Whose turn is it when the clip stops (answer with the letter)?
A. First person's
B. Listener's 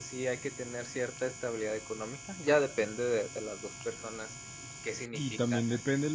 B